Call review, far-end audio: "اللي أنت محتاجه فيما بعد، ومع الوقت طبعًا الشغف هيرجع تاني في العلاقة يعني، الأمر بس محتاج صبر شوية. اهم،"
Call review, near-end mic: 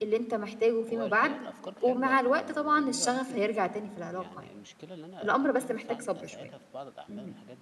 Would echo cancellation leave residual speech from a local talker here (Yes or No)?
Yes